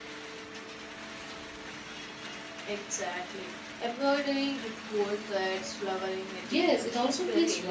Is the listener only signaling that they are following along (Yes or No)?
No